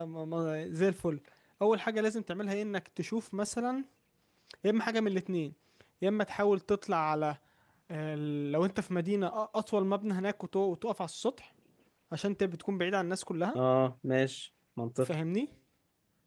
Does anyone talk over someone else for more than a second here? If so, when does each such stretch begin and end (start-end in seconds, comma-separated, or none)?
none